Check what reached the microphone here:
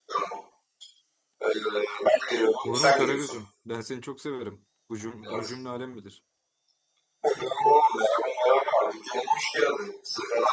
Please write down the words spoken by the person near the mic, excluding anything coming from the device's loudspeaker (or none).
Olur mu Karagözüm? Ben seni çok severim. Bu cüm- bunu cümle alem bilir.